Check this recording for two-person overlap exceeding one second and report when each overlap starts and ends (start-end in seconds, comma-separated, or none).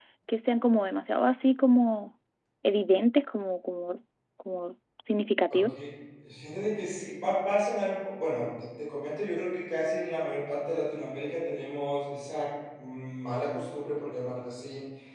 none